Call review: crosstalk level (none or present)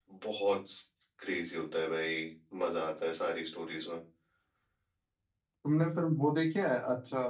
none